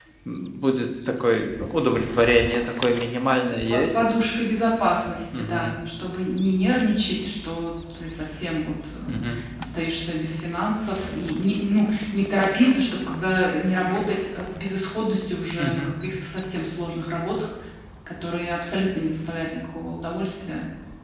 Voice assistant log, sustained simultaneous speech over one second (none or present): none